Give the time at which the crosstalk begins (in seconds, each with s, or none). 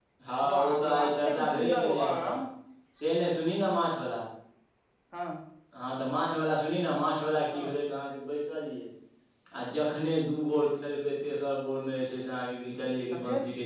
0.5 s